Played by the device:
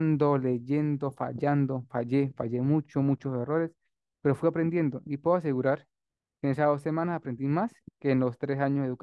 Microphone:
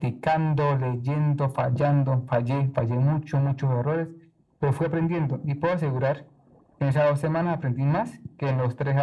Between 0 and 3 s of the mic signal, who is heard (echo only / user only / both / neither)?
echo only